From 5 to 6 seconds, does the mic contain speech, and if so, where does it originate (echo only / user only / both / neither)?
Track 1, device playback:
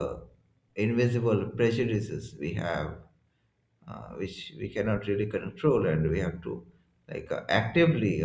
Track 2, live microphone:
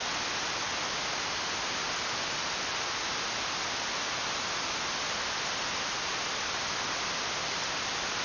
neither